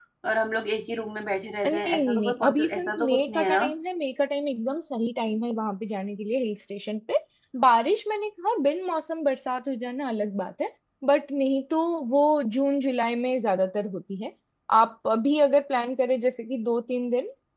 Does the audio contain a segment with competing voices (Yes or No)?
Yes